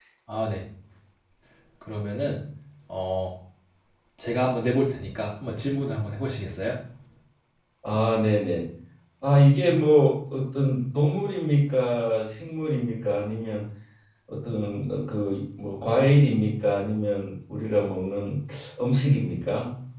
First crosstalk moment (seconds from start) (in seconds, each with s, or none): none